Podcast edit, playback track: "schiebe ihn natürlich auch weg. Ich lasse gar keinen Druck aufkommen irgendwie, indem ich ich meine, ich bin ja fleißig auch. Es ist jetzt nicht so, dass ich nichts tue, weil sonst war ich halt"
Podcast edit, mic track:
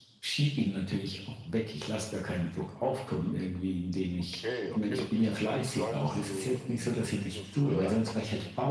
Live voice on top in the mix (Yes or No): No